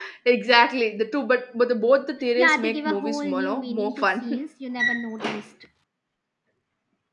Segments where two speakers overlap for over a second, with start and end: 2.4-4.4

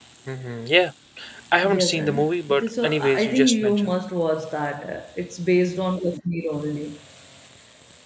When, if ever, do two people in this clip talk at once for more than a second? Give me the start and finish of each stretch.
1.6-3.9

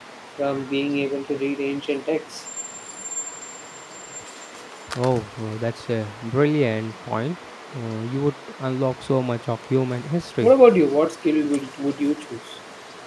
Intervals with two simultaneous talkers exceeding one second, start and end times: none

